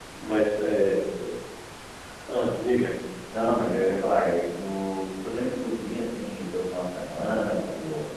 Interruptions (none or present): none